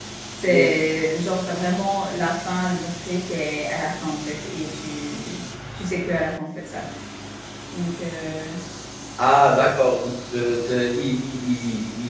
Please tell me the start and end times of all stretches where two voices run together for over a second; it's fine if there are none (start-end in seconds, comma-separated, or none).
none